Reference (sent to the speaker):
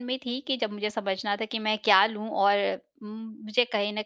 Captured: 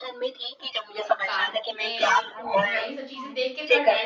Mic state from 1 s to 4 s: both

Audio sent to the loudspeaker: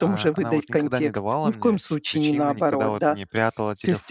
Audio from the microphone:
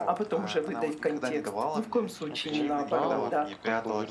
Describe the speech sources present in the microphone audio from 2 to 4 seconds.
both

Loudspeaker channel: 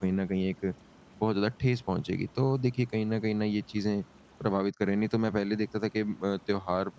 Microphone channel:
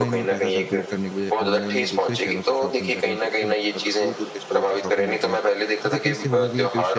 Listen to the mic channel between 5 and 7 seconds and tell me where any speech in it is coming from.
both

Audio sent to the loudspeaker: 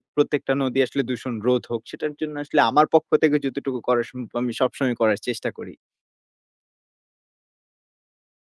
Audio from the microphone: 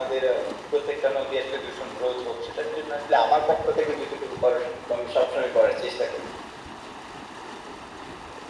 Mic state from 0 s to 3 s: echo only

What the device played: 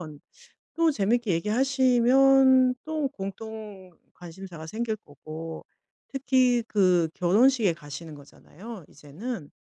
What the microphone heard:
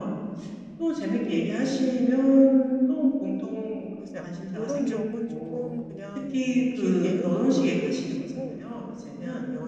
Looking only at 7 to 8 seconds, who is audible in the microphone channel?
both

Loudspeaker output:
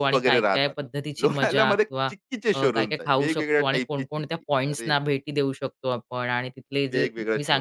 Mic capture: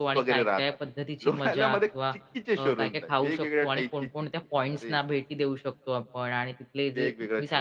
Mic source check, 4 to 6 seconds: echo only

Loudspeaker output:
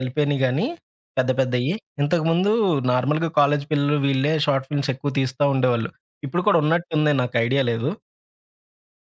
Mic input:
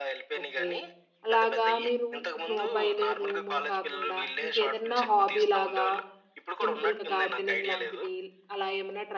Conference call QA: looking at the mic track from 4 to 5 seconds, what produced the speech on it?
both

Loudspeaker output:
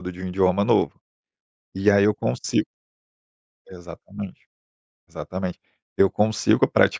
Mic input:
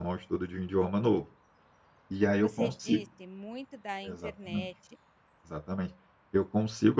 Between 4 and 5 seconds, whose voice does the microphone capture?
both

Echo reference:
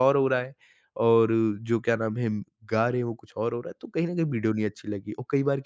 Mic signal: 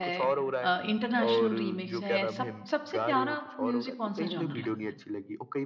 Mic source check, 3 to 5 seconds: both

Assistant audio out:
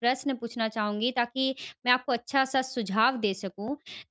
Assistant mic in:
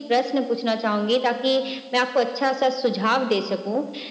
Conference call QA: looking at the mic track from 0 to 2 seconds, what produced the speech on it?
echo only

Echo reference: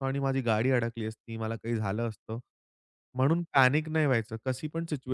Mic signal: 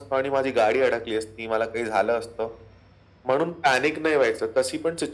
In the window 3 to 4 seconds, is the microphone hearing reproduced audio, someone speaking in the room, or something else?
echo only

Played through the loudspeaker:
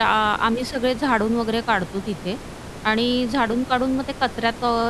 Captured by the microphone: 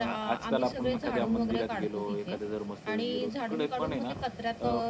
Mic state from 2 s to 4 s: both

